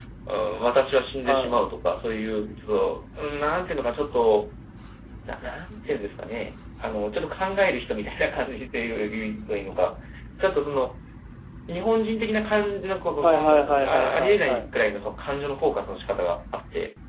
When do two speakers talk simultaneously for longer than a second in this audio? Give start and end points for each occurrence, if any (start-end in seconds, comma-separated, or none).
13.2-14.7